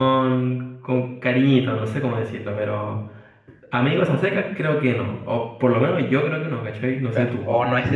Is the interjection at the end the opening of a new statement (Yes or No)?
Yes